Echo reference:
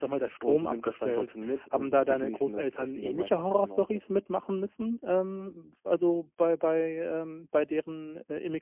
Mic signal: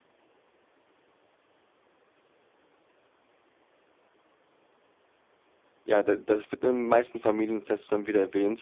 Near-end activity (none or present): present